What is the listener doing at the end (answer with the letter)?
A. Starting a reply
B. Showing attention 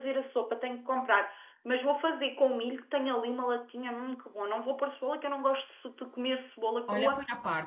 A